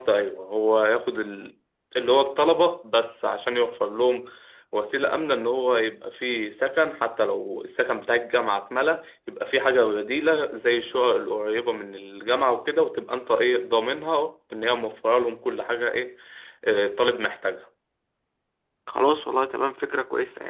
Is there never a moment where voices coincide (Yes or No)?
Yes